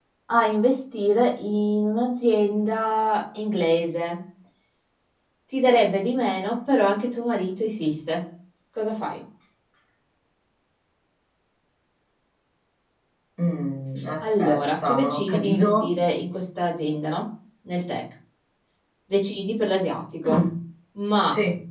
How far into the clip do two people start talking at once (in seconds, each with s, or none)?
14.2 s